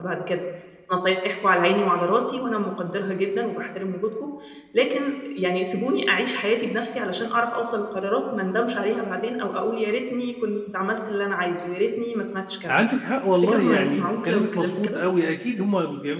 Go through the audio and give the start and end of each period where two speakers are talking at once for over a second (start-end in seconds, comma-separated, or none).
13.3-15.0